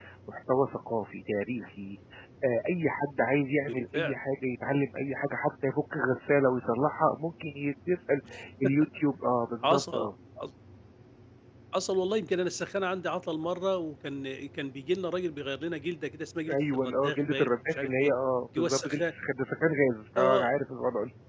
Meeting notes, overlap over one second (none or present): present